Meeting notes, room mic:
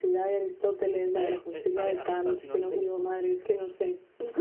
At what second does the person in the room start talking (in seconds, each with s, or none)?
1.1 s